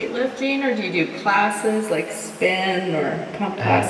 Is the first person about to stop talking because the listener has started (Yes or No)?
Yes